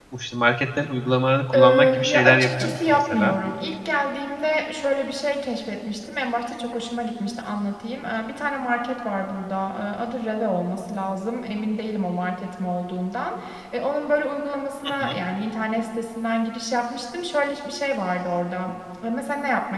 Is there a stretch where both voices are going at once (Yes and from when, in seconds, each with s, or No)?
Yes, from 1.5 s